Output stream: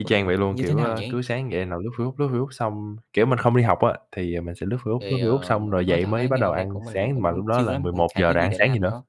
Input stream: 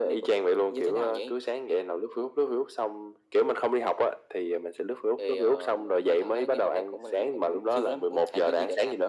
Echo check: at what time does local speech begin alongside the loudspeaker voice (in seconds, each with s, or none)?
none